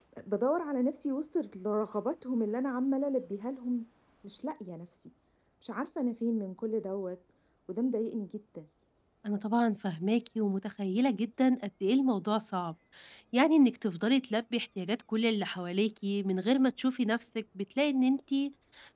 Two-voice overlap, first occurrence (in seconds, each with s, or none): none